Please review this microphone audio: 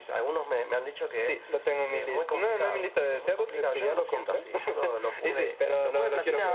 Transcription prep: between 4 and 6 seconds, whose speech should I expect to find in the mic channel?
echo only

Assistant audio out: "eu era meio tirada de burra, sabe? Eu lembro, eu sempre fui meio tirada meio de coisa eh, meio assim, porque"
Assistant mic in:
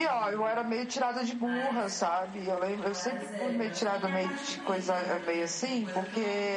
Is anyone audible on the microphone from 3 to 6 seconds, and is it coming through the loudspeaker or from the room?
both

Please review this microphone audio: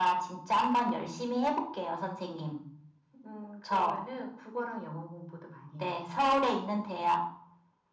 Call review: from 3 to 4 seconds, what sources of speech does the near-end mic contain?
echo only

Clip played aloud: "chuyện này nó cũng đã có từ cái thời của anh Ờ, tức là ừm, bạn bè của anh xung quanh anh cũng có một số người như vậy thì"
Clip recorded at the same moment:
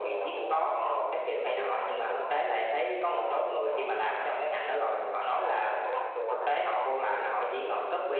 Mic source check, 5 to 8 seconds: both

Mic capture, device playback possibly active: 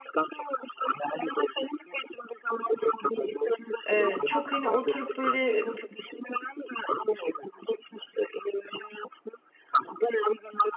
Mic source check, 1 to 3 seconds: echo only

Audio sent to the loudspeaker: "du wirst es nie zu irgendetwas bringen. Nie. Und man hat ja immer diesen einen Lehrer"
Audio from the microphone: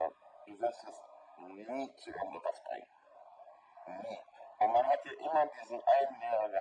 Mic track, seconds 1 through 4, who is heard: echo only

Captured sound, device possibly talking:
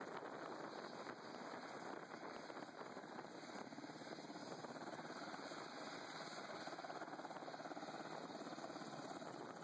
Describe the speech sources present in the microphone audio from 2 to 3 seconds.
neither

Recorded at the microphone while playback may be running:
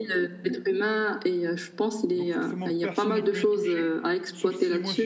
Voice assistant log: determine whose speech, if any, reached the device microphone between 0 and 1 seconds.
echo only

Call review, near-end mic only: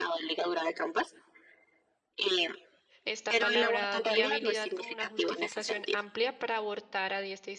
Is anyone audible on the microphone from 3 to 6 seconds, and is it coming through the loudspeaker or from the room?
both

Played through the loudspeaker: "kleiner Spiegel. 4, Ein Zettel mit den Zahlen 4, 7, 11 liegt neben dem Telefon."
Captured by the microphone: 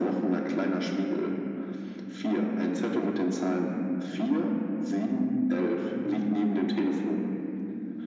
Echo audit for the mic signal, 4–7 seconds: echo only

